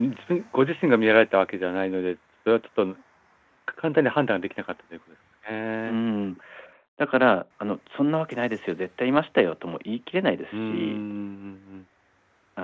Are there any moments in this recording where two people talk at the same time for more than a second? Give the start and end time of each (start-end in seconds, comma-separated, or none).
none